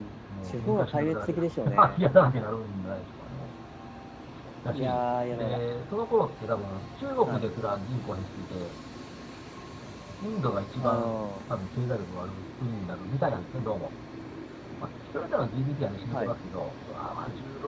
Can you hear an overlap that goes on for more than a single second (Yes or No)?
Yes